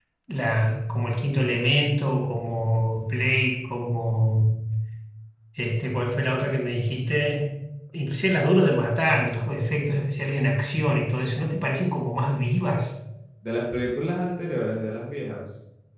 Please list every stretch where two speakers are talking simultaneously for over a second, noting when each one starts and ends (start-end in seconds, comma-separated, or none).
none